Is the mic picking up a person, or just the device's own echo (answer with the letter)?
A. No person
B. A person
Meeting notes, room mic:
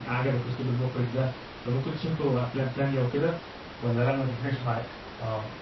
A